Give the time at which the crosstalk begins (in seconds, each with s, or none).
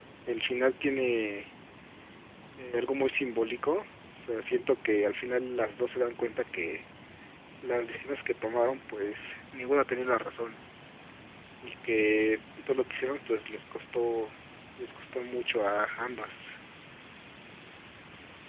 none